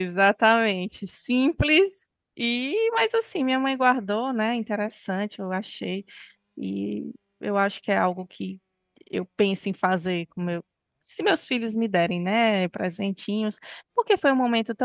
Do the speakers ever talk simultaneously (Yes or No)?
No